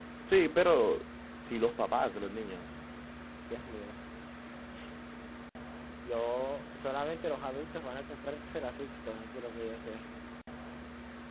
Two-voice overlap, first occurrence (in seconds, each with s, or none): none